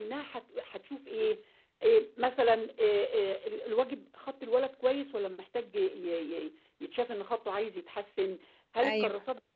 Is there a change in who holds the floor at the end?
No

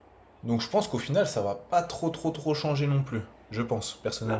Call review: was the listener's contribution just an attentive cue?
No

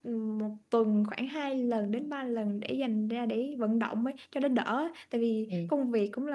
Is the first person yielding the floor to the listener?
No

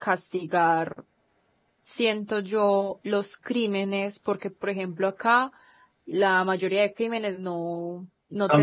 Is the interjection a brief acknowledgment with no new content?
Yes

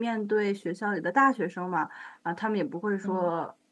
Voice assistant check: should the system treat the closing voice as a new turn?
No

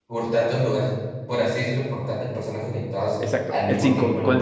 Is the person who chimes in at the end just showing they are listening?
No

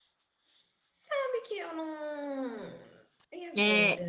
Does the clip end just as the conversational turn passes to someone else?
Yes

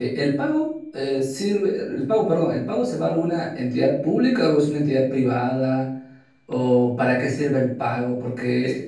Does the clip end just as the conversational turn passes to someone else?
No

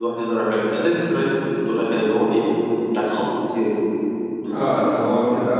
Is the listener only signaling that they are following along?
No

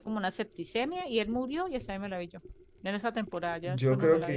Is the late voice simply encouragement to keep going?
No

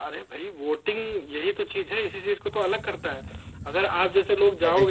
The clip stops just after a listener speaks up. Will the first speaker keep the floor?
Yes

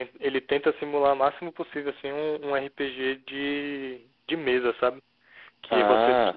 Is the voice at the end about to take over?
No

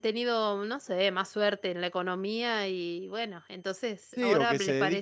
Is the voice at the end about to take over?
Yes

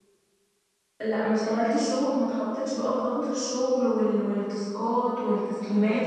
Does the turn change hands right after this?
No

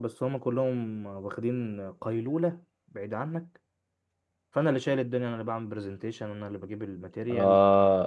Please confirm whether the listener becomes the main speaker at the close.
Yes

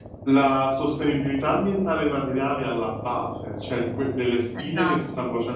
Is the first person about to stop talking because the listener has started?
No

